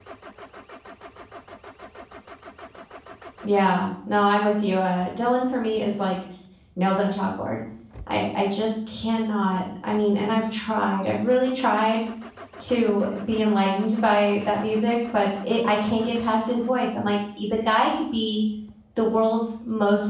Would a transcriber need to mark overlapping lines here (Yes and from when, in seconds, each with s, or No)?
No